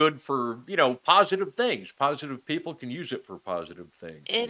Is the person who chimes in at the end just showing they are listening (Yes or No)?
No